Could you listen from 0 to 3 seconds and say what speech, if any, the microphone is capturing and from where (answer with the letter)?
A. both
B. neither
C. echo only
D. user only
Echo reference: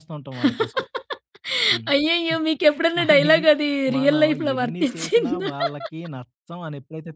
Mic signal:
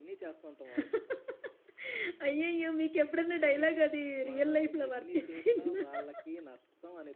C